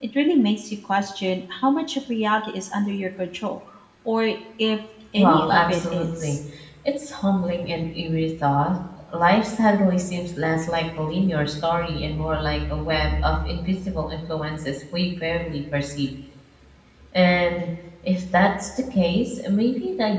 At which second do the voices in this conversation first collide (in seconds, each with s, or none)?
5.2 s